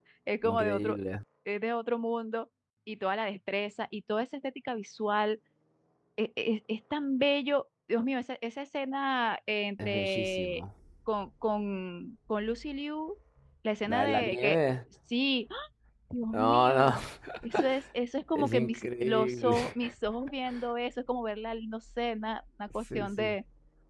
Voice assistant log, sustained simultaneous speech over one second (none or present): present